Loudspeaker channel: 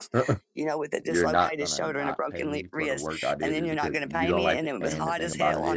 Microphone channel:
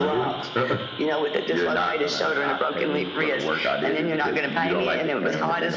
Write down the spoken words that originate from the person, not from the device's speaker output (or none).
none